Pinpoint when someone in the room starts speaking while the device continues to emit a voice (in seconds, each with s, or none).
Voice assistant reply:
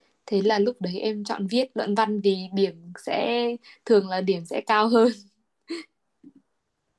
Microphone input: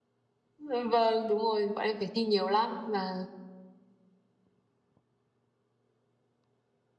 0.6 s